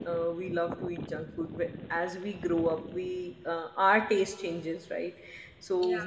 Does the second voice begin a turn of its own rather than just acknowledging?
No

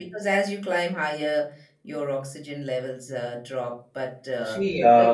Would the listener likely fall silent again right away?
No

